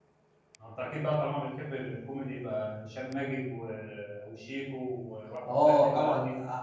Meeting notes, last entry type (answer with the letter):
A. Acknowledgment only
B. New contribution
B